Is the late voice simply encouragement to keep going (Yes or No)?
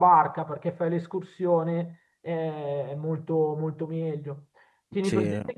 Yes